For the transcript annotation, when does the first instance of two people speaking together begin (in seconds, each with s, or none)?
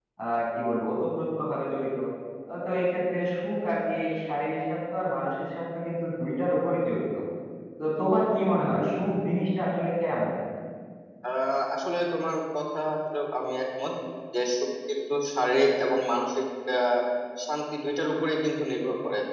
none